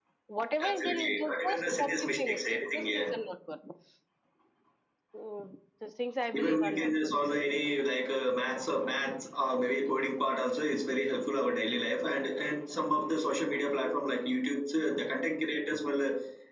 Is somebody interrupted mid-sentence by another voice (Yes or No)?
Yes